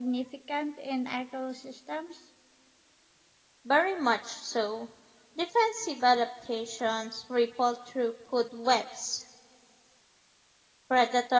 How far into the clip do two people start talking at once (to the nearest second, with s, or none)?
none